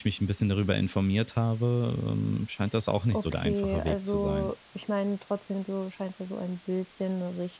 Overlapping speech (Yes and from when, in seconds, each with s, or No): Yes, from 3.1 s